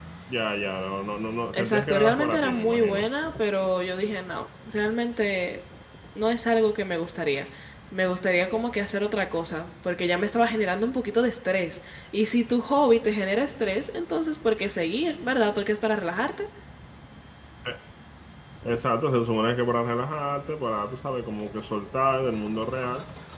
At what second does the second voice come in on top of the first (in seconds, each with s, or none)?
1.5 s